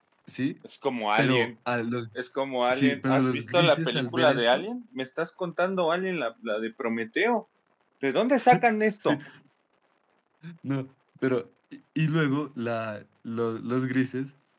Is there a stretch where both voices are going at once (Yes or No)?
Yes